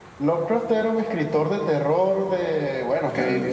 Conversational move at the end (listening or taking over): listening